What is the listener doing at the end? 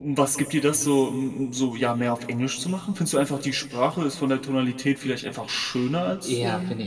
taking over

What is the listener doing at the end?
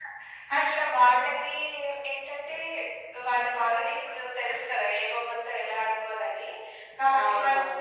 listening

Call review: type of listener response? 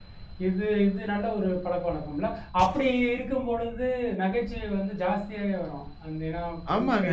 taking over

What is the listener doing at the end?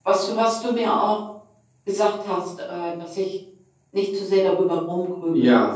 taking over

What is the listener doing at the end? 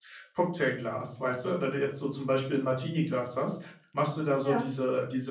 listening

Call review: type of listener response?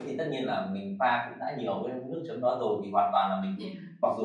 listening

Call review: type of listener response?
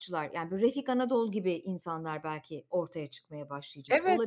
taking over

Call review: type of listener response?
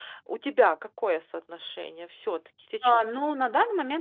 taking over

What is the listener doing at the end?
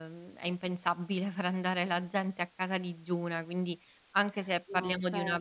listening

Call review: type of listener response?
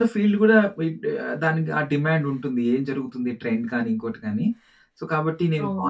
listening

